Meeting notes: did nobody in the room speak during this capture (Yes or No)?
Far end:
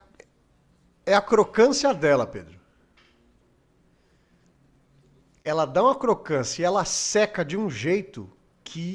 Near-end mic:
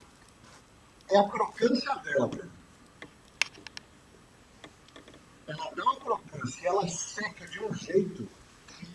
Yes